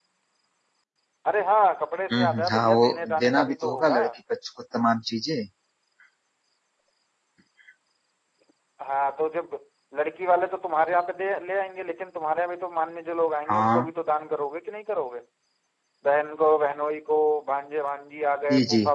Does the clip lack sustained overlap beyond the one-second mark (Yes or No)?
No